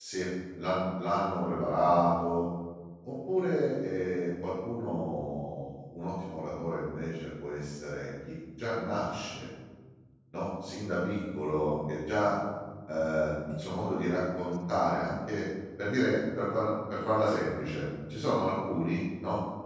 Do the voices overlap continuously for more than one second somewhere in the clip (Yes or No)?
No